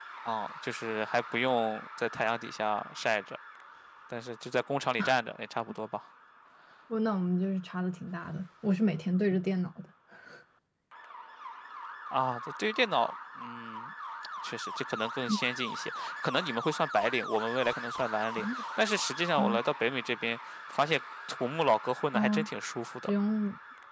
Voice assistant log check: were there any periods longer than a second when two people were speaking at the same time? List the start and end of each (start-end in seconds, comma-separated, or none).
none